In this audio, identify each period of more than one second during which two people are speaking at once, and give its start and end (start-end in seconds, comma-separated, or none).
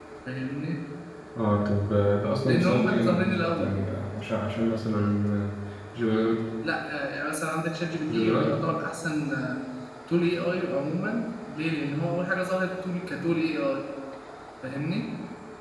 2.5-3.8